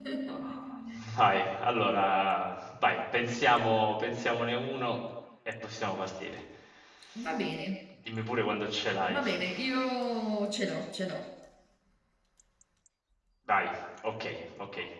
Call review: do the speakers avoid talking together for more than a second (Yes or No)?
Yes